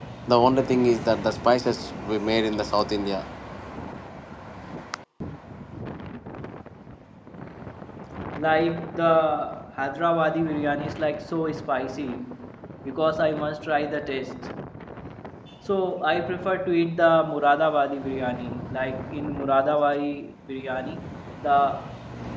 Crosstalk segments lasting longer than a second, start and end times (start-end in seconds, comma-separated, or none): none